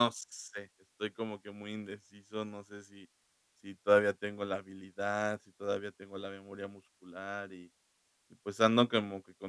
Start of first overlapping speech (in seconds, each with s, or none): none